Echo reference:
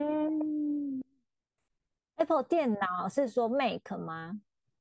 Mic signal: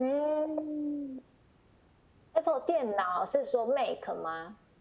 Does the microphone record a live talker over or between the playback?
No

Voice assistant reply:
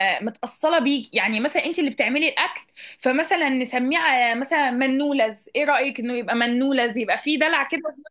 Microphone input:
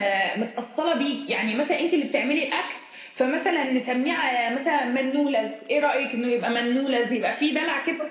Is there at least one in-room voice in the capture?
No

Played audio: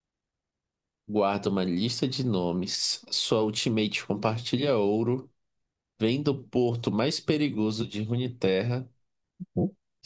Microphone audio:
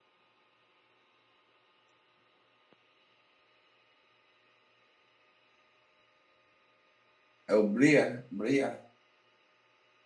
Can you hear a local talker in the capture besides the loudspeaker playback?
Yes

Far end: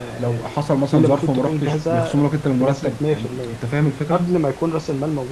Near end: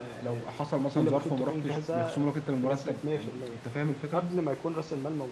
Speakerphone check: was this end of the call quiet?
Yes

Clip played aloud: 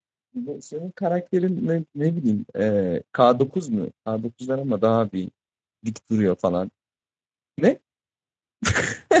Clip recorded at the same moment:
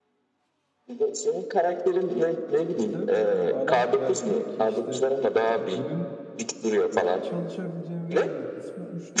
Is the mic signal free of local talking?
No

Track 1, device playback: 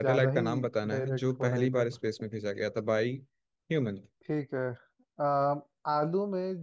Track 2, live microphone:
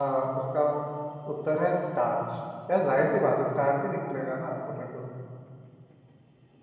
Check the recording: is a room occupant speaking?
Yes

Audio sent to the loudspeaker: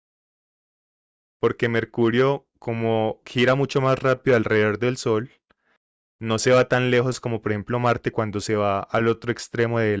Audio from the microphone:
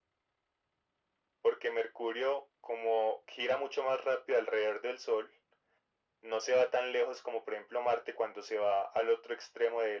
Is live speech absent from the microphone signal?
Yes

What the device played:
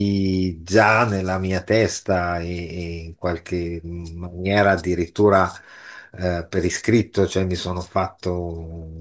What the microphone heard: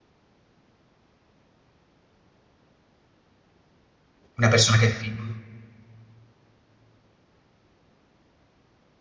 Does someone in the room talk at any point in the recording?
Yes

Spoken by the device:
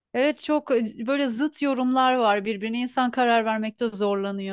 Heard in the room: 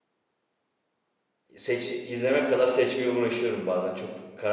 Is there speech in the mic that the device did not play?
Yes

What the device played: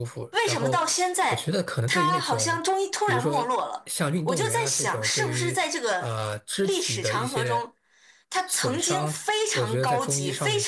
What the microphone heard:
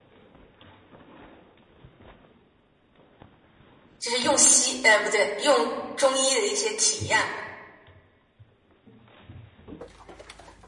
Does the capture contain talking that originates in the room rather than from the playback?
Yes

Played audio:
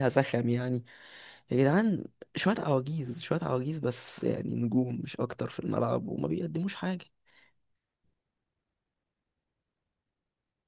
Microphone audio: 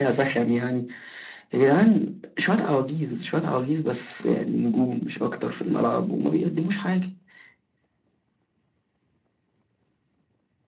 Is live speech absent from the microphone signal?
Yes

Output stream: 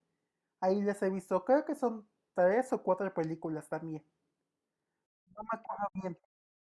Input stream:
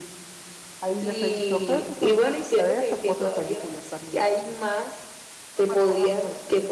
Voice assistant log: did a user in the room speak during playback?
Yes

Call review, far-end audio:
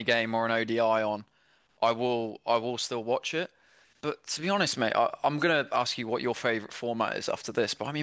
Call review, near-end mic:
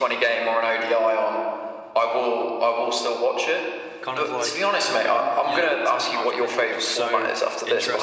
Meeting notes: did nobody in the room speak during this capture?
No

